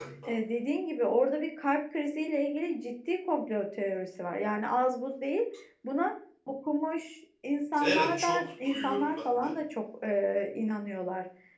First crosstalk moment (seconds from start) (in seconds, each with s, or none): 7.8 s